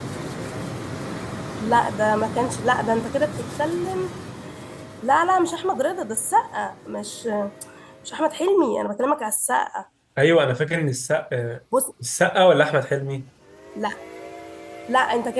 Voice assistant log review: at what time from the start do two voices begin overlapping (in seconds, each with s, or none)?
none